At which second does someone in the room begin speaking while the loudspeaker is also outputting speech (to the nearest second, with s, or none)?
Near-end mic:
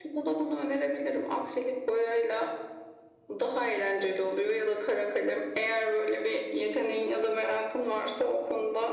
none